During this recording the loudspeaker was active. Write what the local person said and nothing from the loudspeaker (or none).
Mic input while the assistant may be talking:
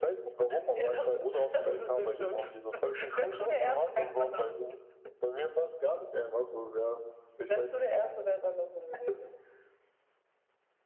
none